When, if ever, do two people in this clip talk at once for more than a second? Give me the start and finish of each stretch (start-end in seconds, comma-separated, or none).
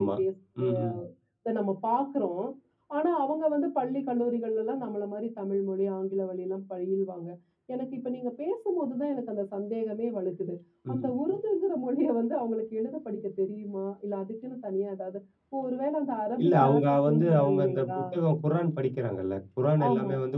16.4-18.0